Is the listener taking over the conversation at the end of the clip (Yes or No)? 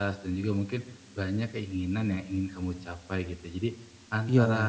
No